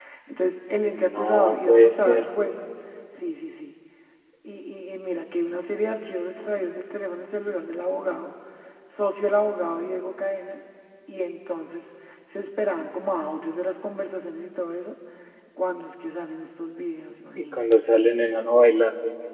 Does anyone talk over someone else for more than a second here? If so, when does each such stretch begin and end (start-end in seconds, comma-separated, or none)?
0.9-2.3